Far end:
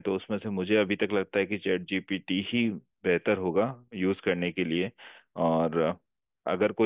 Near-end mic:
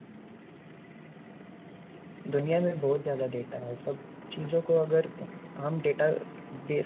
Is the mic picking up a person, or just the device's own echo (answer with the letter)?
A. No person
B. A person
B